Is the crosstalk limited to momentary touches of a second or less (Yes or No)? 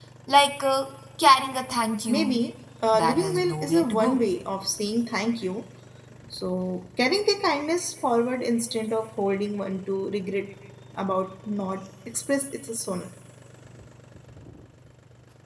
No